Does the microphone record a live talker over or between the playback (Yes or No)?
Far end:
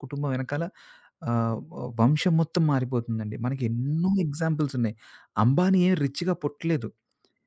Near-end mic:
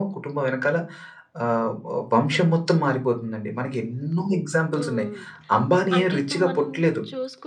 Yes